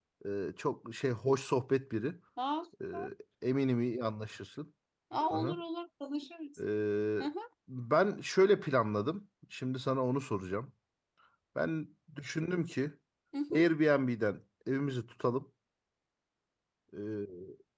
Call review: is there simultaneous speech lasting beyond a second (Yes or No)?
No